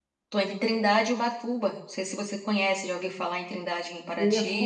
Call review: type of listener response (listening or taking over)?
taking over